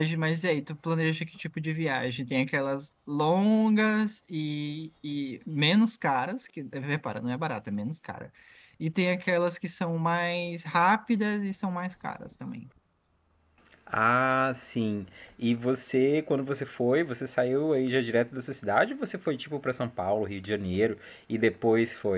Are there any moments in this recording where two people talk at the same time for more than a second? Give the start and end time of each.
none

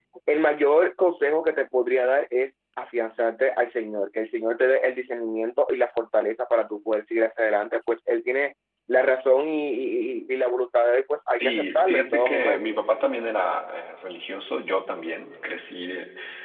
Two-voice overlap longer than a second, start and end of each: 11.3-12.6

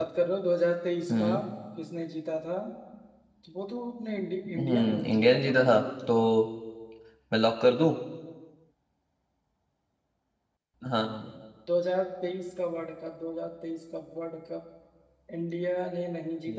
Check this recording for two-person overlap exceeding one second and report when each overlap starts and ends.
4.5-5.8

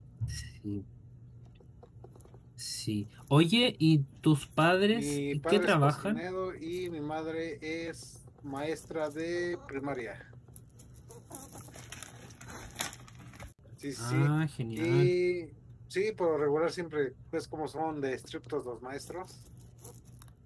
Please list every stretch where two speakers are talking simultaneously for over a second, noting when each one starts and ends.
4.9-6.2

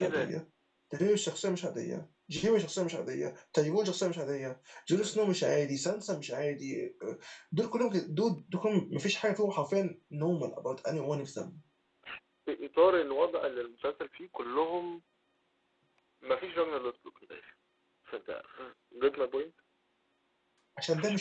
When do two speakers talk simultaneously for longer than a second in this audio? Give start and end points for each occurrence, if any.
none

